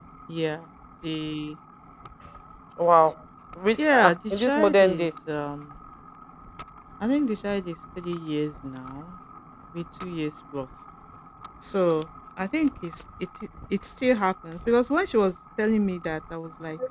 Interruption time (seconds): 4 s

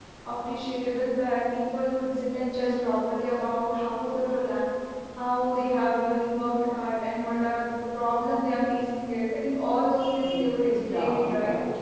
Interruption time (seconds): 10 s

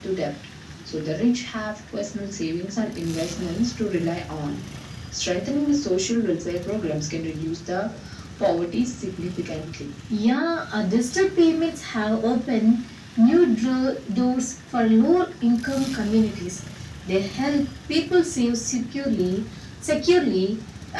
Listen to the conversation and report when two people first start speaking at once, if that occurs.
none

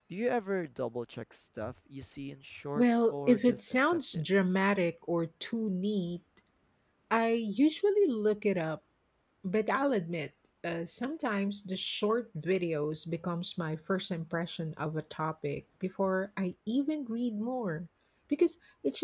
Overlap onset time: 3 s

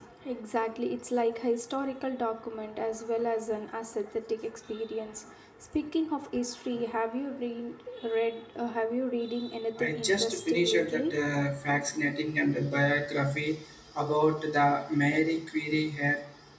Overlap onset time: 10 s

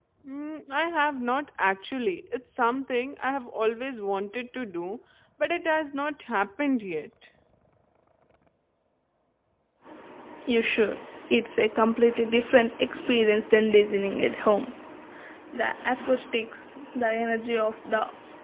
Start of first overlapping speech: none

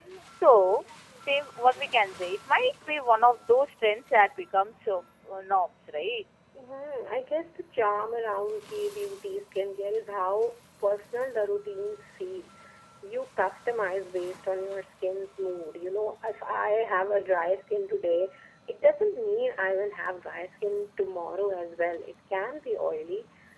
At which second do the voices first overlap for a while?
none

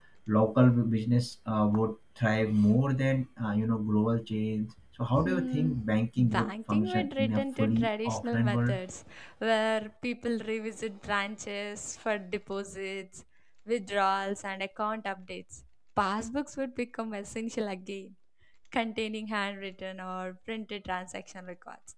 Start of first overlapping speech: 5 s

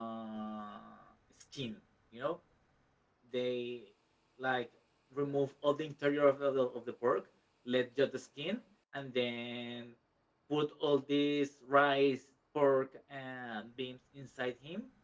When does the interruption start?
none

